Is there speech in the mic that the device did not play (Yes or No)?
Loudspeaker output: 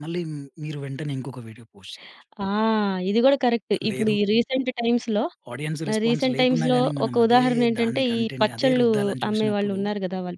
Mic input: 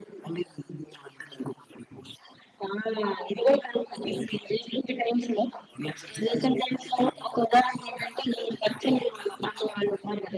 No